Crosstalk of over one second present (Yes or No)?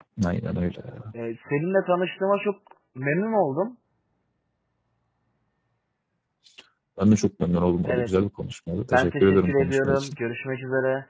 Yes